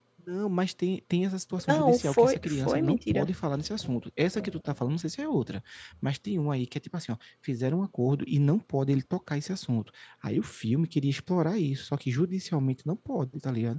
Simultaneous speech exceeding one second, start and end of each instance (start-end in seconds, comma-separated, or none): 1.7-3.3